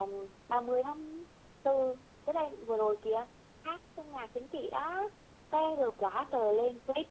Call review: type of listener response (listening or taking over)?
listening